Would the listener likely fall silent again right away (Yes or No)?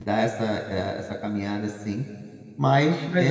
No